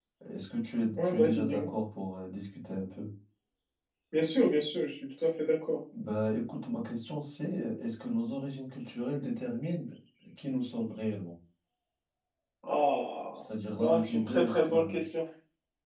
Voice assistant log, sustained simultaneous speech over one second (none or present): present